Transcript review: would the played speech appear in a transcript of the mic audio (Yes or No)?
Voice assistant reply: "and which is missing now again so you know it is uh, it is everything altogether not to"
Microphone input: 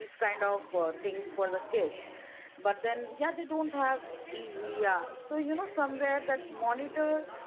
Yes